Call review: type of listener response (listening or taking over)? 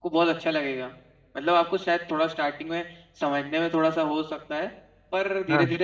listening